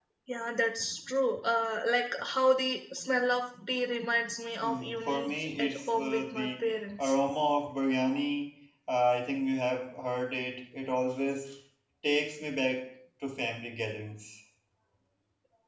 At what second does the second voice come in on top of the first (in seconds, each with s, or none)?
4.6 s